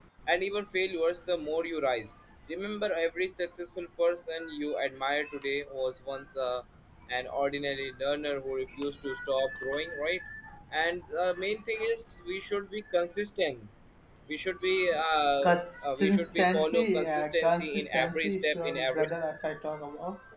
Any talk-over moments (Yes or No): Yes